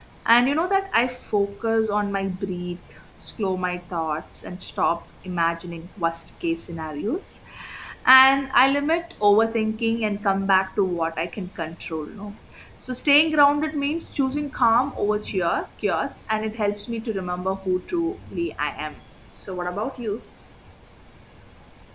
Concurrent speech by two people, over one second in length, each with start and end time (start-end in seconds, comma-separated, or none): none